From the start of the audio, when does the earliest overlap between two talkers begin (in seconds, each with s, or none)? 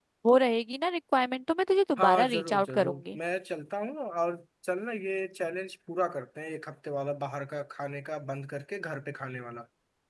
2.0 s